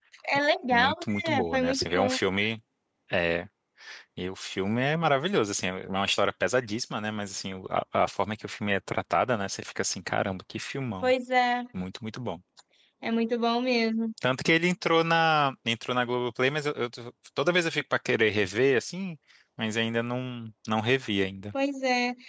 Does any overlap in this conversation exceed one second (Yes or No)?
Yes